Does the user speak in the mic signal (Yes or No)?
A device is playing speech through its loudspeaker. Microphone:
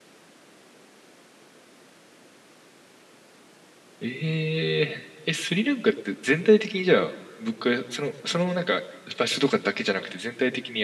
Yes